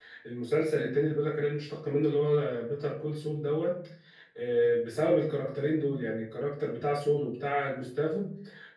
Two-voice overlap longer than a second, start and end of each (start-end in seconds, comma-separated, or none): none